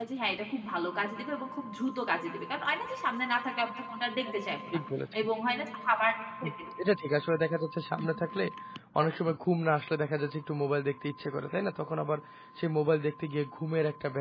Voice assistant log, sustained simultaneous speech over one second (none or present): none